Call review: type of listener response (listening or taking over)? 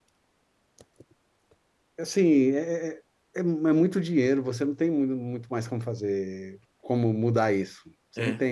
listening